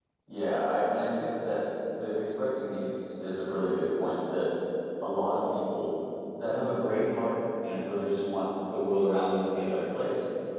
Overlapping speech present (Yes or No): No